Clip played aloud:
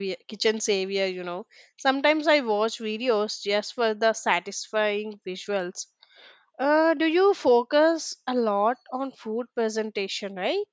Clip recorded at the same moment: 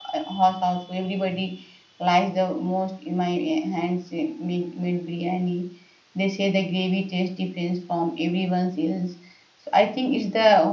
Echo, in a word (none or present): none